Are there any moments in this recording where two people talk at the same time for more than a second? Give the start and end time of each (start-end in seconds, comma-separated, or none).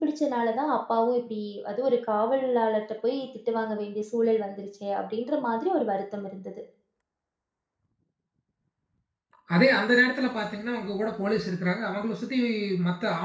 none